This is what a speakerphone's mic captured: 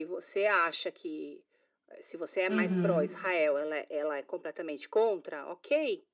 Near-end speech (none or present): present